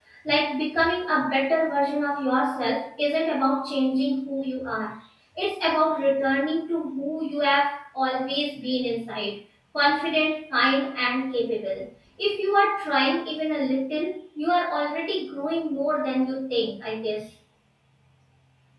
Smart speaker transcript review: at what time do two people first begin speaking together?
none

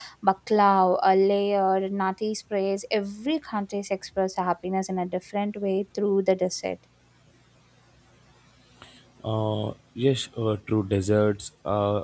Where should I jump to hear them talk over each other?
none

